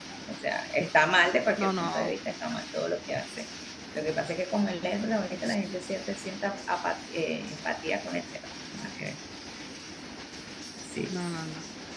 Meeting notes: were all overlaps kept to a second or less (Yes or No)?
Yes